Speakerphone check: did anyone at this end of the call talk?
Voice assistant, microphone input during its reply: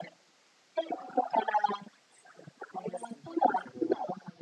No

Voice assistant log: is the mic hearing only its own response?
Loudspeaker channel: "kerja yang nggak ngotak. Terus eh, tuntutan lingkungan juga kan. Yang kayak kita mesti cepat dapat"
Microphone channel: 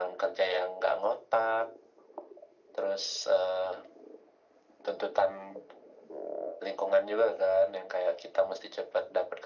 Yes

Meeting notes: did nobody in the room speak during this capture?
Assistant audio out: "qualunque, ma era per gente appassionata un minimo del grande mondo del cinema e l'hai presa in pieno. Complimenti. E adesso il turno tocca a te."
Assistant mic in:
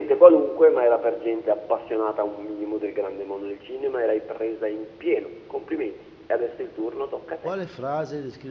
No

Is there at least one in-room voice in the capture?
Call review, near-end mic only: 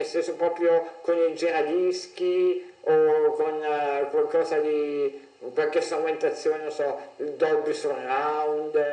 No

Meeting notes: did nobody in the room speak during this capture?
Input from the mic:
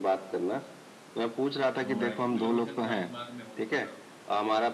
No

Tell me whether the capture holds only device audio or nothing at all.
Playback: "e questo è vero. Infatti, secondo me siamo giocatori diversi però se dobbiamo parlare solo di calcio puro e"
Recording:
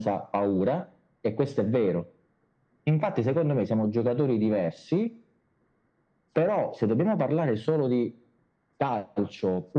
Yes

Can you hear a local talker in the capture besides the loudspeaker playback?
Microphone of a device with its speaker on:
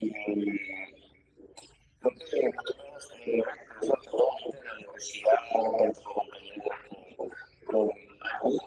No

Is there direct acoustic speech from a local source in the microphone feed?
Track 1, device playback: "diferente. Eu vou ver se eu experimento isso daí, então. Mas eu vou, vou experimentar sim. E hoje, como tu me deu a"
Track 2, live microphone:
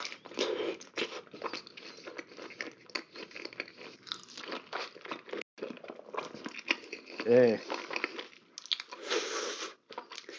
Yes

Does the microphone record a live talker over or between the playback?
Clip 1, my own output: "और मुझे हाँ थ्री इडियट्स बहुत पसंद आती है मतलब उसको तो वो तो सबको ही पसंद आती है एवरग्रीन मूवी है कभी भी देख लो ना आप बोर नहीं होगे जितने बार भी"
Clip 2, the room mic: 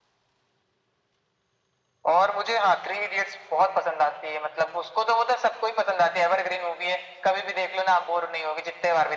No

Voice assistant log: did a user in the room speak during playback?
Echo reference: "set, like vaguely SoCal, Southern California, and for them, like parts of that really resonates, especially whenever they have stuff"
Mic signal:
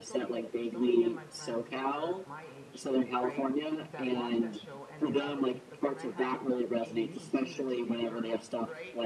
Yes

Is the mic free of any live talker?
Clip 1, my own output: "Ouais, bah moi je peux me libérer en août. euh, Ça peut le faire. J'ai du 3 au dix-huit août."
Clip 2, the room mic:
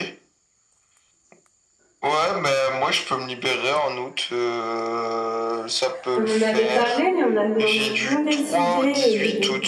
No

